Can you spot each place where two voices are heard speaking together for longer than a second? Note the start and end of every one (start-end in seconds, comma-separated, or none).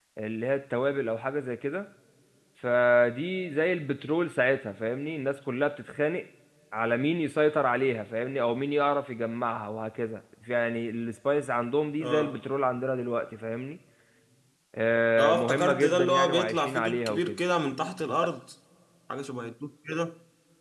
15.2-17.4